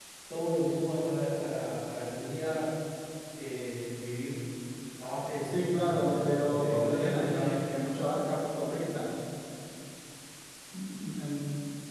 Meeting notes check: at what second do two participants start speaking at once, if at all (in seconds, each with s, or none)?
5.4 s